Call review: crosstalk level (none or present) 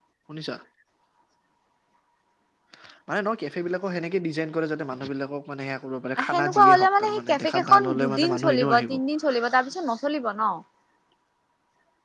present